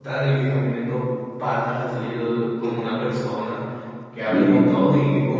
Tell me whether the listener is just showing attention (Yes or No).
Yes